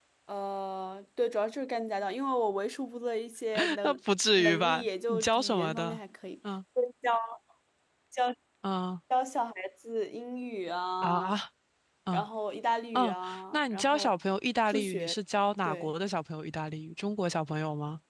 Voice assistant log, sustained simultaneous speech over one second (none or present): present